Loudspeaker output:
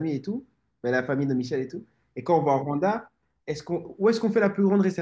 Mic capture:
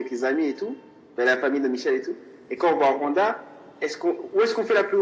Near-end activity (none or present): none